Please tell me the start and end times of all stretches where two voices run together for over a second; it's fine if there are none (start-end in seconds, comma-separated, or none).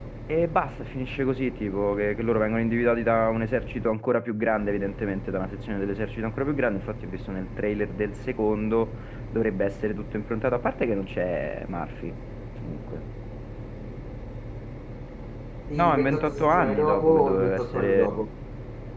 15.7-18.1